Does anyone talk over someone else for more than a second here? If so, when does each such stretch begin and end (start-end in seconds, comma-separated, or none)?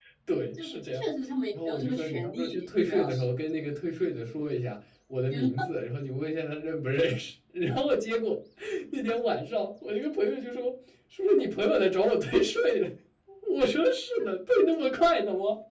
1.6-3.3